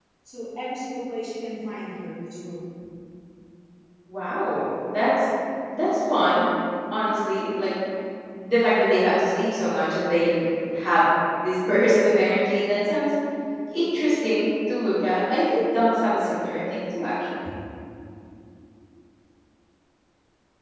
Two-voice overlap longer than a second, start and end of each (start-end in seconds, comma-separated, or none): none